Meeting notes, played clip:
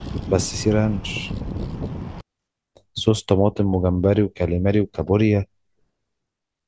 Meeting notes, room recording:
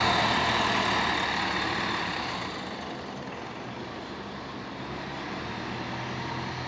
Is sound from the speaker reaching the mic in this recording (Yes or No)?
No